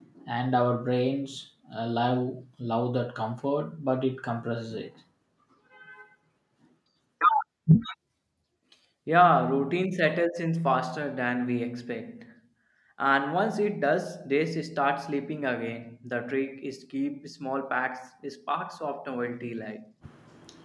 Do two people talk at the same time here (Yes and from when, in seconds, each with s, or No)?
No